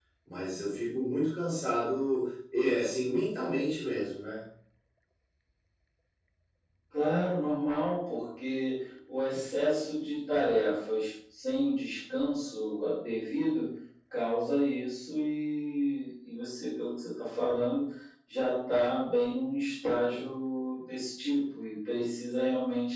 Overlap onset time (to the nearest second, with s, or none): none